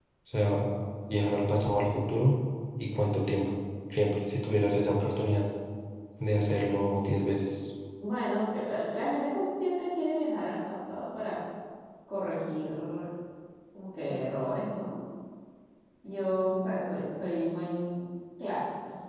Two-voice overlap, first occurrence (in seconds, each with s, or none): none